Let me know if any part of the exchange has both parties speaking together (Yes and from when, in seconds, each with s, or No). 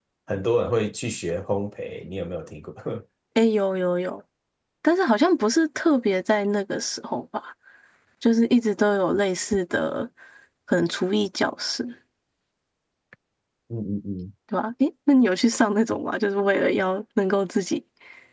No